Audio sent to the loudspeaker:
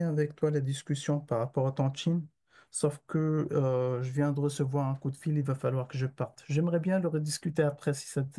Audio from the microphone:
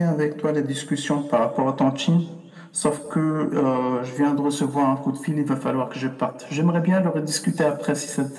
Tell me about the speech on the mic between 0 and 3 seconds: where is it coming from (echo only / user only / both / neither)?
echo only